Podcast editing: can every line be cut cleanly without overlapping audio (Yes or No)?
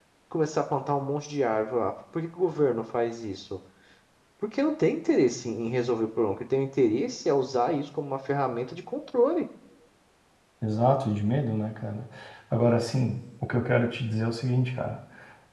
Yes